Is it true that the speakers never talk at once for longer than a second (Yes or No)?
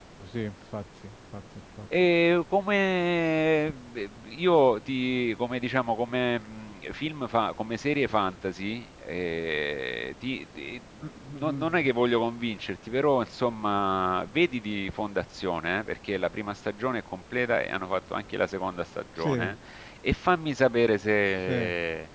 Yes